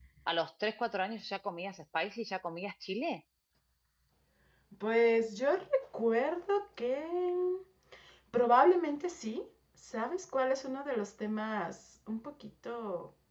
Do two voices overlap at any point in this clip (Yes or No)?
No